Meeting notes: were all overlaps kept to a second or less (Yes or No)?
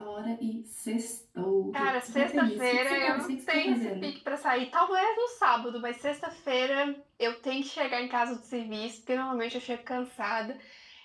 No